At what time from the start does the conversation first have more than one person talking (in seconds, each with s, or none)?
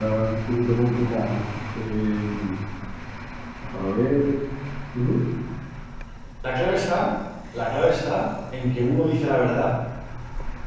none